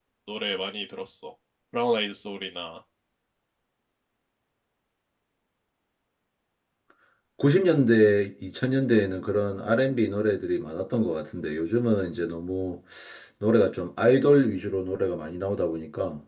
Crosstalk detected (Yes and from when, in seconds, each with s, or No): No